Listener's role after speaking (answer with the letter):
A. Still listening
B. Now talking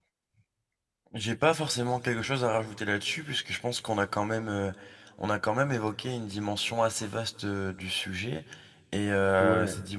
A